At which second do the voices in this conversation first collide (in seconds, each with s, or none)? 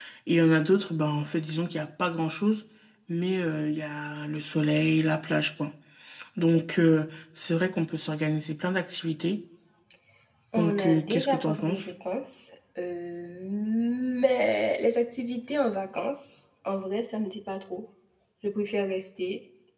10.6 s